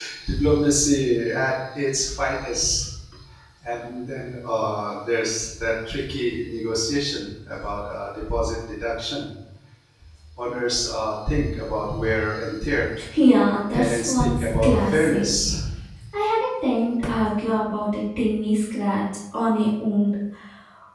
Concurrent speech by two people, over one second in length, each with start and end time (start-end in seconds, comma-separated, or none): 13.7-15.3